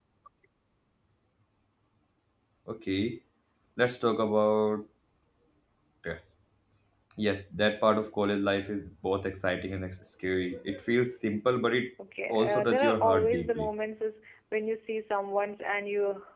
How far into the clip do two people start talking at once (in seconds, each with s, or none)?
12.3 s